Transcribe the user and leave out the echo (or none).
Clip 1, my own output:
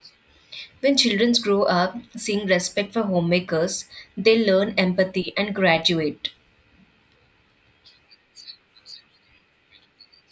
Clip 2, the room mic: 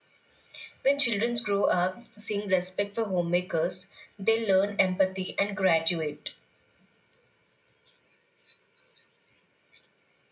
none